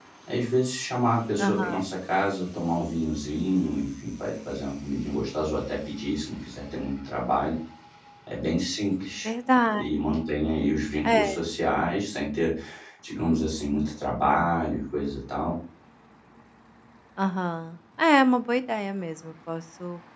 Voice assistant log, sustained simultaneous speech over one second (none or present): none